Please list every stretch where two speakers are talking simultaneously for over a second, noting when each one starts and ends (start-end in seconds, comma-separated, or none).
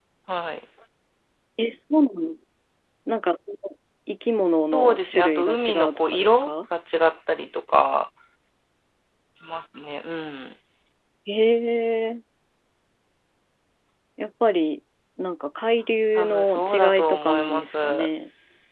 4.7-6.5, 16.2-18.1